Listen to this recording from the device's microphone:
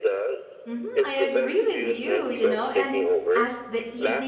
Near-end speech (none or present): present